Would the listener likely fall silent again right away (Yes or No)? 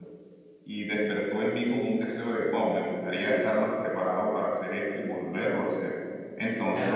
No